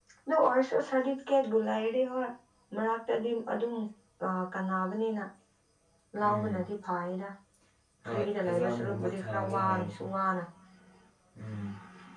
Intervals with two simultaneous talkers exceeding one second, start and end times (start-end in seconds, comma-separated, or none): 8.1-10.0